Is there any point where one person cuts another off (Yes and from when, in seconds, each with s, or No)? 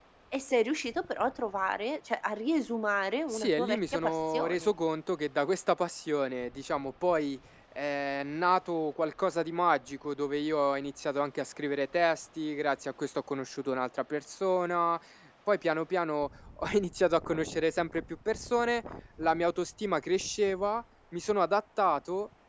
Yes, from 3.3 s